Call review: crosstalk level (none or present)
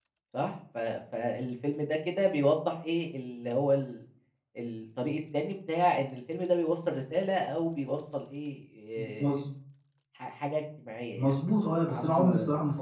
present